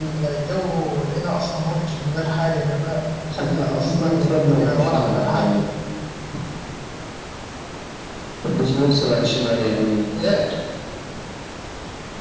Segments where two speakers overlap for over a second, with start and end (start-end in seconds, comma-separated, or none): 3.4-5.5